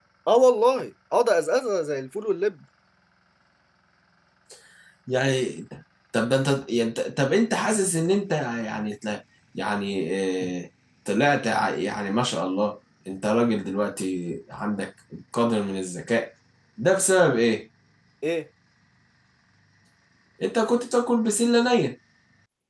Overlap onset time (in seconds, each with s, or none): none